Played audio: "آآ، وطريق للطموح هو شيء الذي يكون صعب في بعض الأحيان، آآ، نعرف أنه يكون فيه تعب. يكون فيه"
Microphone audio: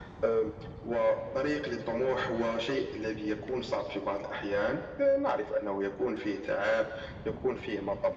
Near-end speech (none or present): none